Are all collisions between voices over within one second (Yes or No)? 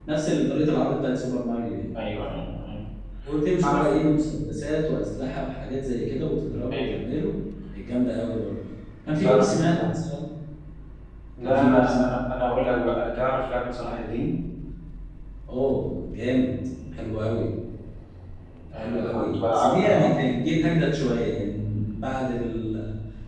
No